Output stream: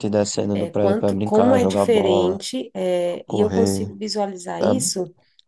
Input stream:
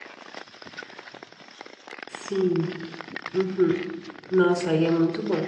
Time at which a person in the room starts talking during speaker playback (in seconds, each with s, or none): 2.1 s